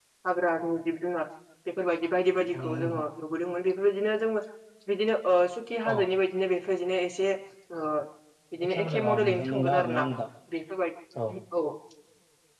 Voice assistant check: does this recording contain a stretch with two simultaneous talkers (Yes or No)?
Yes